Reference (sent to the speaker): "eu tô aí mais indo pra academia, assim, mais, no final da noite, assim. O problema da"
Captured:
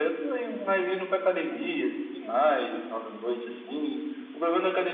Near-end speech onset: none

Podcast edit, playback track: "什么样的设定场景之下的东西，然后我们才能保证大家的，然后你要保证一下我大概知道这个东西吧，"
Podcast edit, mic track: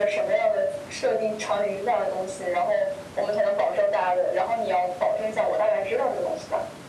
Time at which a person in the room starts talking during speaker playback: none

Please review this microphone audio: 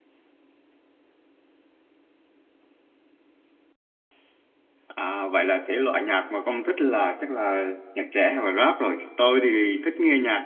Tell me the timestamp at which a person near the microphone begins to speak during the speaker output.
5 s

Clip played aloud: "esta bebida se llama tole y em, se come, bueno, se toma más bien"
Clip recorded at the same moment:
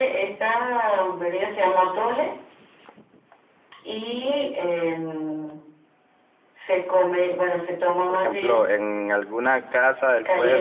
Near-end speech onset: 8 s

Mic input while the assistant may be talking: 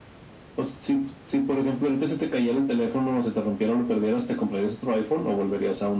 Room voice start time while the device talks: none

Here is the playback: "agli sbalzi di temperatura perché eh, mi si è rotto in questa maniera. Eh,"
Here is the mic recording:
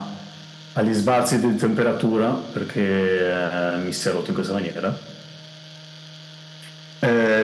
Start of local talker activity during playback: none

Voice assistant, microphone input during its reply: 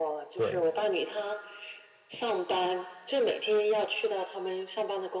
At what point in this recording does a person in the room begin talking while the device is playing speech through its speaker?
0 s

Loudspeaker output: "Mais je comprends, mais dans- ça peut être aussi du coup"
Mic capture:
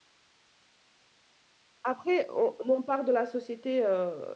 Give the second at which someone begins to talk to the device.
2 s

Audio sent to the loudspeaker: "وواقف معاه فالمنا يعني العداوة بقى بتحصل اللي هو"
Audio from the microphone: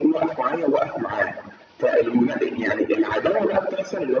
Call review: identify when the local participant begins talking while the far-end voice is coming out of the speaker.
none

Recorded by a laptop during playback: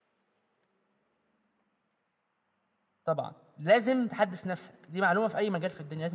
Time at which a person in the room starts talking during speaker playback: 3 s

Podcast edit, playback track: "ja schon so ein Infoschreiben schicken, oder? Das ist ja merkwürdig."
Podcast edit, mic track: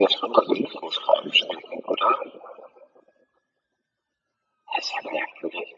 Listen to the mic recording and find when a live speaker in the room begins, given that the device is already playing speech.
none

